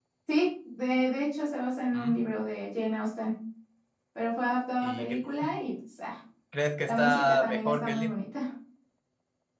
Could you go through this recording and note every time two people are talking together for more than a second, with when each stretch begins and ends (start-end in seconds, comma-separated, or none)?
6.8-8.2